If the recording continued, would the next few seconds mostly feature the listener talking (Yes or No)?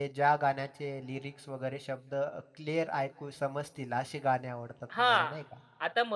Yes